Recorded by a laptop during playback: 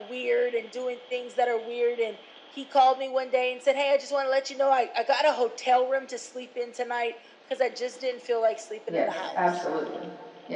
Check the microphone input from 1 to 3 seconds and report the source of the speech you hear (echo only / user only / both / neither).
echo only